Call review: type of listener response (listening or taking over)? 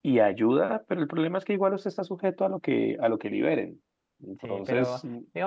taking over